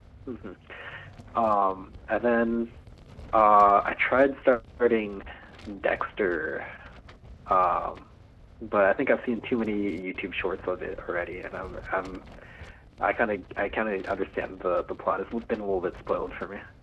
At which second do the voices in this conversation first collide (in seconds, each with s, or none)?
none